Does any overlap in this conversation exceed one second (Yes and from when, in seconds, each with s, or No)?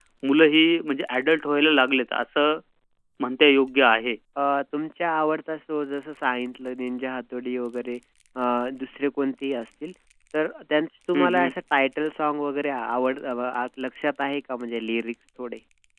No